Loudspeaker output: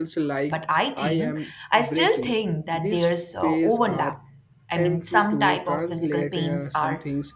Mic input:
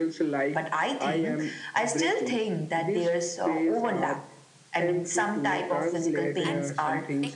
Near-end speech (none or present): present